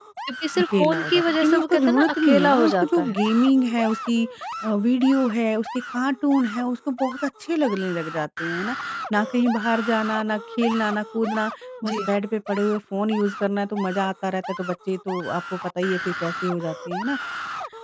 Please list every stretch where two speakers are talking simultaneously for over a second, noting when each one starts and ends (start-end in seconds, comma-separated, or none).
0.6-3.2